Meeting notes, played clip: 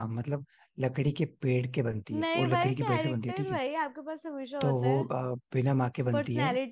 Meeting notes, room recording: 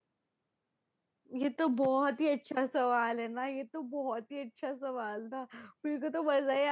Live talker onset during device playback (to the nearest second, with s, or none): 1 s